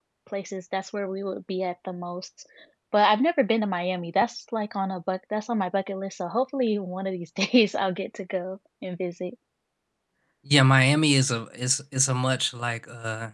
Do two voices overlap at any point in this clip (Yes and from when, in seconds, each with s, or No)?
No